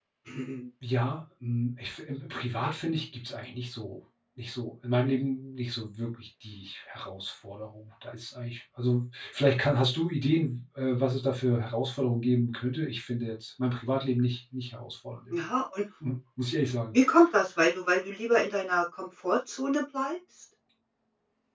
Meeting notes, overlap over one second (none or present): none